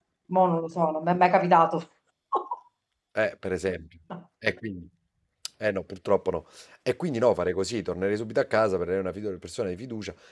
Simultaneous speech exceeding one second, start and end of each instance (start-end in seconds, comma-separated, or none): none